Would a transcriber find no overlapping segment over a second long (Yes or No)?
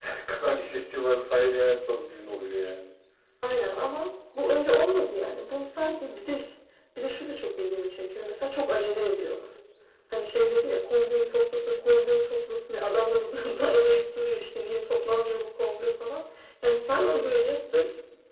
Yes